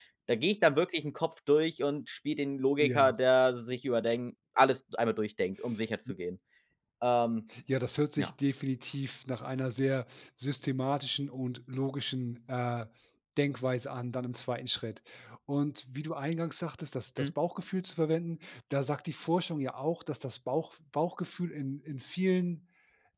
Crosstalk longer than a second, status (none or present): none